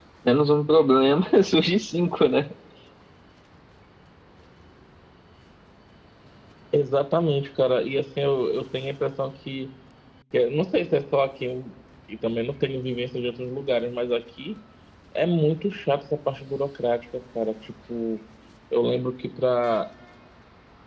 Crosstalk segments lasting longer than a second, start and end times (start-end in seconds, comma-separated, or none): none